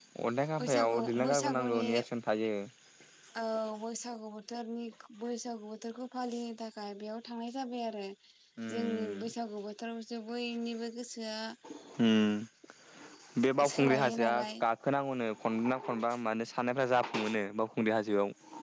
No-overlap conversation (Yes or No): No